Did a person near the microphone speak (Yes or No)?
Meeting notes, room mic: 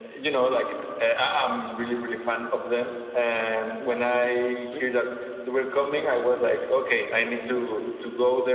Yes